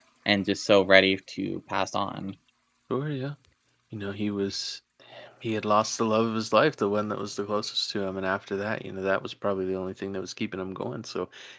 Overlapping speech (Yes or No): No